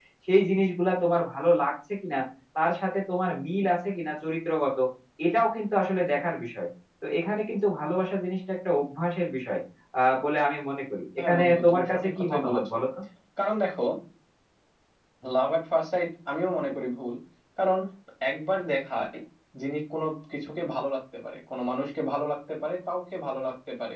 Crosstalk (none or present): present